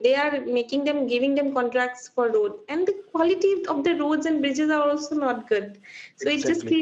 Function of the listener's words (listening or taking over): listening